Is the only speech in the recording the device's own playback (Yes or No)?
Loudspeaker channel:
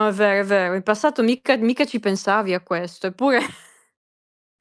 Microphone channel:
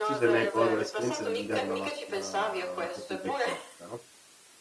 No